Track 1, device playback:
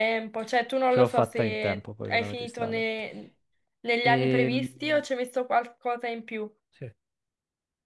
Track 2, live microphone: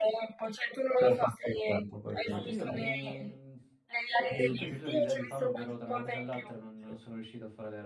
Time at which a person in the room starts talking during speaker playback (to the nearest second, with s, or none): 2 s